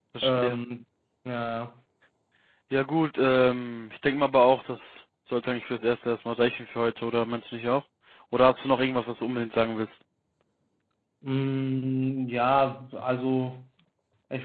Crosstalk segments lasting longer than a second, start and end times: none

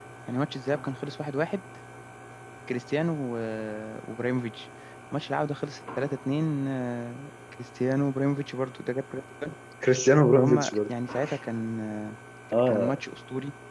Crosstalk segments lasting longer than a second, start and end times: none

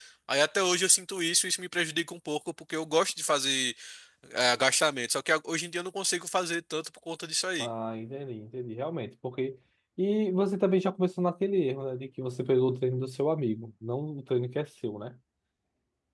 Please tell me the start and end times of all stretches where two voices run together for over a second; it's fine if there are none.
none

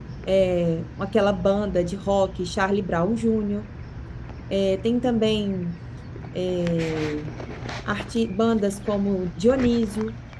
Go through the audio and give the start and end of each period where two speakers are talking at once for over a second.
none

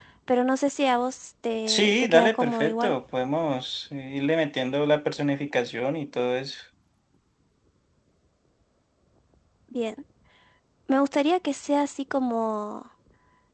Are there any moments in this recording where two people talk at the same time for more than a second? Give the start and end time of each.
1.7-2.9

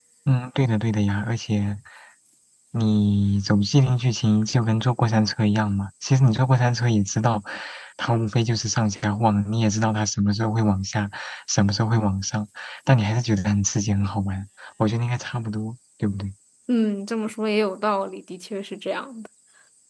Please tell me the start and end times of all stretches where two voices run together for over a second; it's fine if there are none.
none

